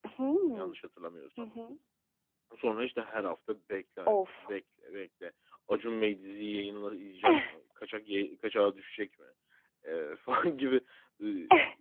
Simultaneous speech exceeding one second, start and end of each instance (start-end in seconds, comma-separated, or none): none